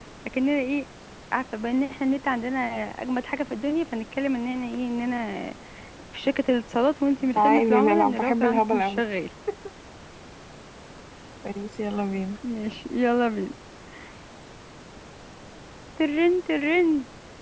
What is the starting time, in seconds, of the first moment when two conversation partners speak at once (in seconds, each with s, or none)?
7.3 s